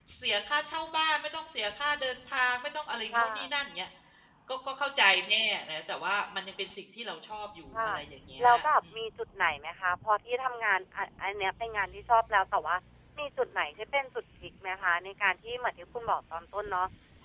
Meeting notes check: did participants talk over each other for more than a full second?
No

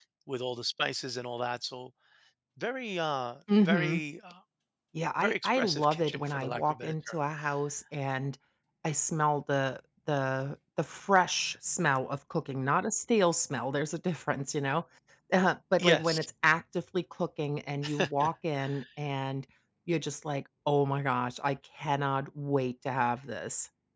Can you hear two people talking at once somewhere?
Yes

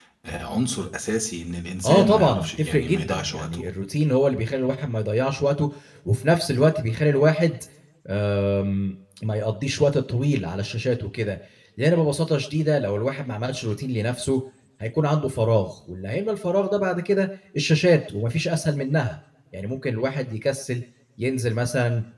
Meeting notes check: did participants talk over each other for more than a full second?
Yes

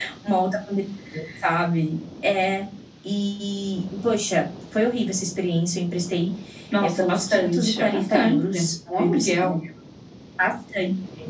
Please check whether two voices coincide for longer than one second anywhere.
Yes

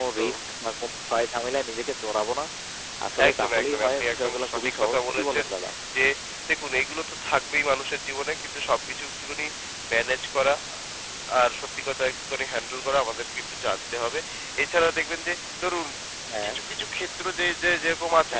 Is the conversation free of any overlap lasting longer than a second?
No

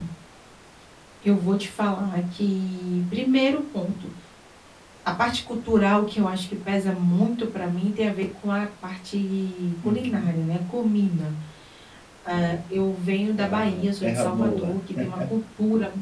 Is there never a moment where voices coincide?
No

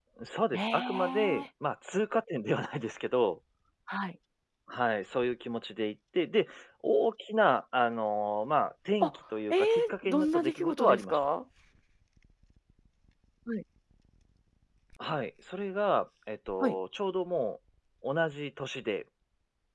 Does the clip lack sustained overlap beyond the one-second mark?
No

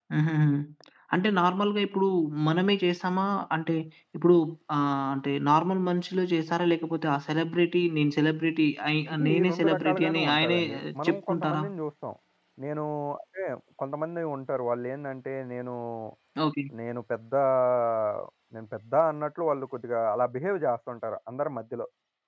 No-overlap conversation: No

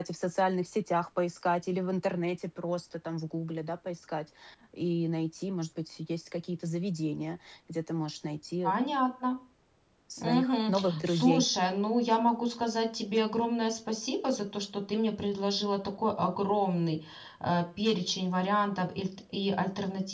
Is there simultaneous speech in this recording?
Yes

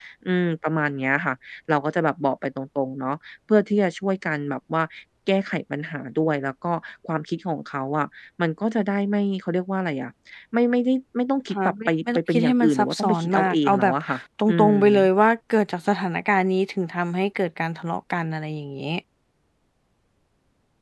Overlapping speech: Yes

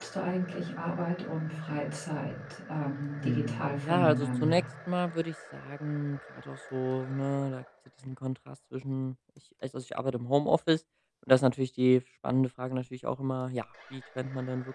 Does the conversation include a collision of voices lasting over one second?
Yes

